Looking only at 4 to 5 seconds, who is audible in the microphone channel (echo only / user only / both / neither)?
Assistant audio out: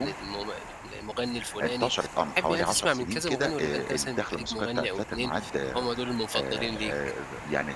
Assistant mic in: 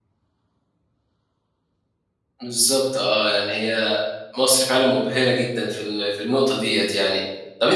user only